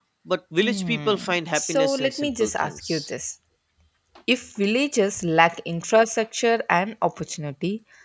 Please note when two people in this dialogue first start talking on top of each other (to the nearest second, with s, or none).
1 s